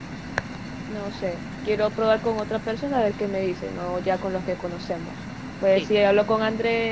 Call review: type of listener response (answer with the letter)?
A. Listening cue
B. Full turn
A